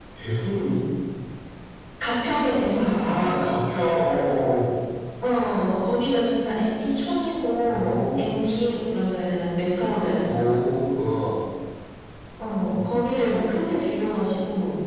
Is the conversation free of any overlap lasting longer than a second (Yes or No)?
Yes